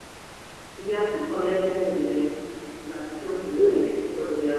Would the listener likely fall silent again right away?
Yes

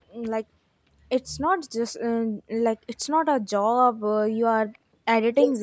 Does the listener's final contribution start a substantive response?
Yes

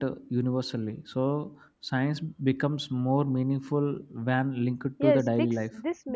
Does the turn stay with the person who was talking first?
No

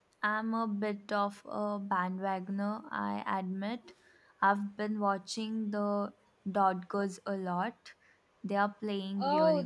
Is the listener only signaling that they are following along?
No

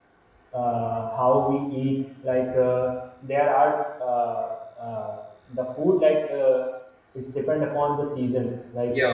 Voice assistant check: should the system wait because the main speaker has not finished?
Yes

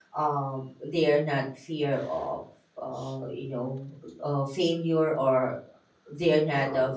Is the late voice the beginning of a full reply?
No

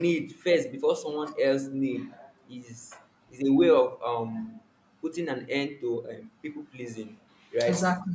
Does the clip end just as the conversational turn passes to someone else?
No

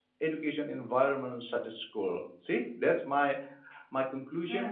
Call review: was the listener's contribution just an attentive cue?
Yes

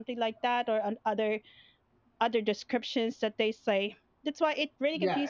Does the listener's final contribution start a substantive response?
Yes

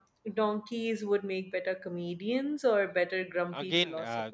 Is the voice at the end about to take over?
Yes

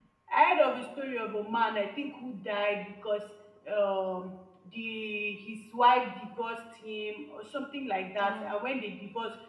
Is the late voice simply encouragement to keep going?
Yes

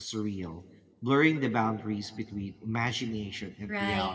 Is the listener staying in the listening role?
No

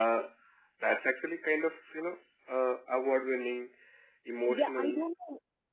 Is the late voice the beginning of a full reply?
Yes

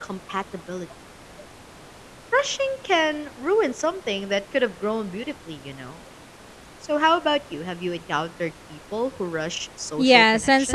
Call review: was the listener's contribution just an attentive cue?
No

